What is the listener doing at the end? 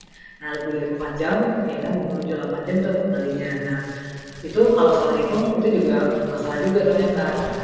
listening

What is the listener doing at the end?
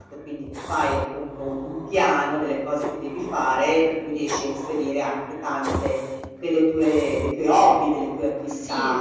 taking over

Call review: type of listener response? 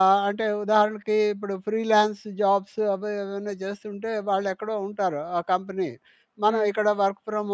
listening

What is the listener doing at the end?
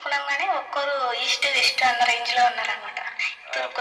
taking over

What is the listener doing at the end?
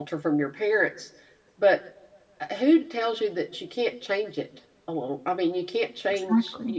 taking over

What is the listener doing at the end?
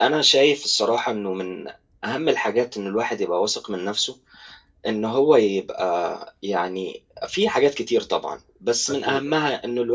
listening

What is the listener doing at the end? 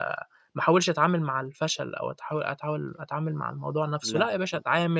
listening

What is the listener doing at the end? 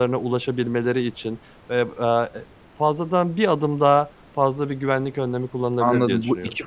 taking over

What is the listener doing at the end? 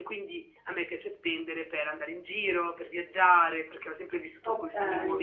listening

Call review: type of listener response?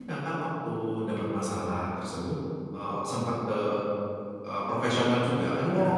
taking over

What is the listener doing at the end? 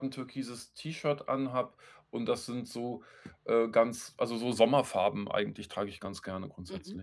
taking over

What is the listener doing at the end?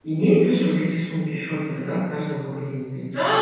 taking over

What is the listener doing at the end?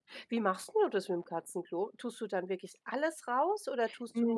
taking over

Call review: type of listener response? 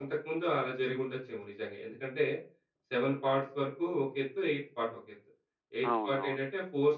listening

